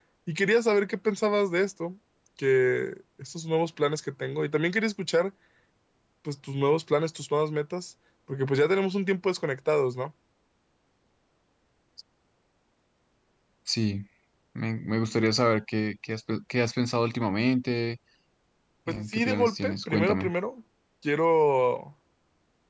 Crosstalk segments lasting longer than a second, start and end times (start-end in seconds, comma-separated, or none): 18.9-20.3